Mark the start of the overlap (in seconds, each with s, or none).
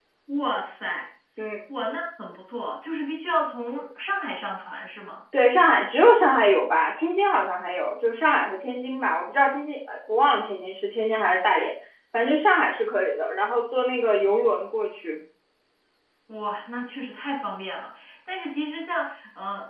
none